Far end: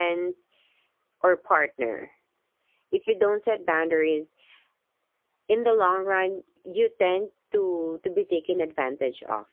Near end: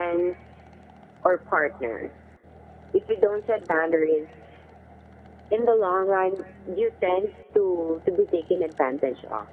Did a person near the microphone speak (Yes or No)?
No